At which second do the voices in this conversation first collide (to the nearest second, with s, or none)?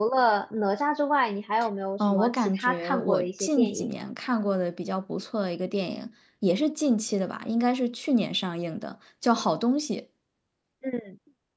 2 s